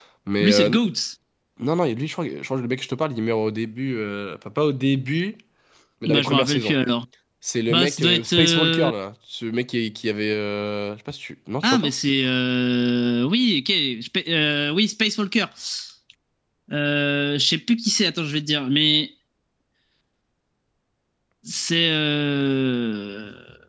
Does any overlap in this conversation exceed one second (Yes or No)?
Yes